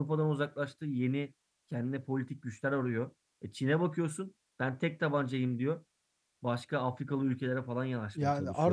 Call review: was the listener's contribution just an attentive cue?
No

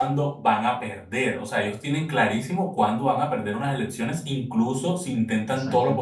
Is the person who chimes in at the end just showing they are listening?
Yes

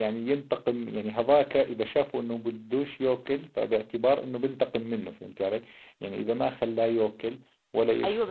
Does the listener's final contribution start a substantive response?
Yes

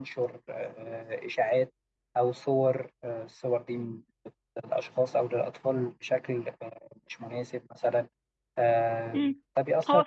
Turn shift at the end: Yes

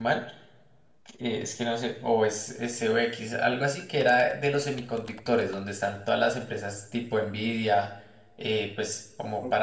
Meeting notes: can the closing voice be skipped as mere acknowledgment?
Yes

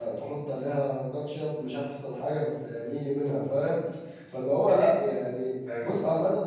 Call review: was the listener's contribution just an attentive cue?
Yes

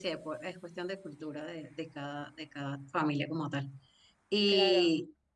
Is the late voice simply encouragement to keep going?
Yes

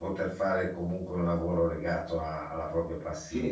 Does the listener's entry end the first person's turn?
Yes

